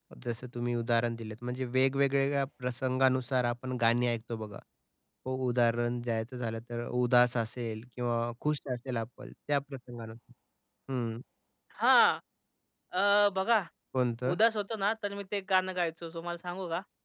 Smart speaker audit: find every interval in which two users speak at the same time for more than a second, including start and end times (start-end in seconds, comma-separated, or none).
none